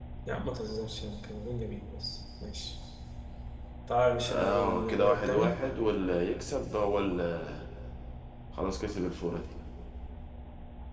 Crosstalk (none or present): present